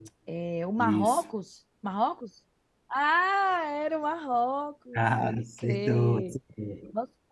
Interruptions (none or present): present